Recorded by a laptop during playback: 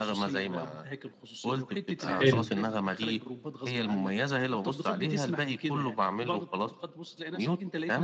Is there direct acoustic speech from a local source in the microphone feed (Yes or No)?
Yes